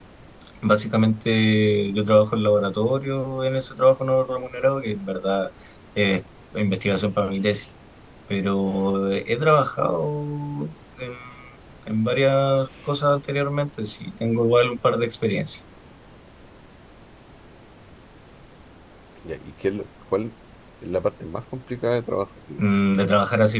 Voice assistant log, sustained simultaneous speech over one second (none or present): none